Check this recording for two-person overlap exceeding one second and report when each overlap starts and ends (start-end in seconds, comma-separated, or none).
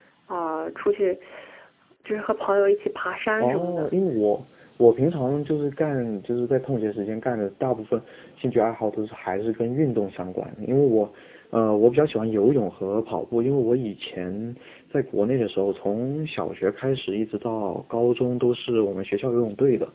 none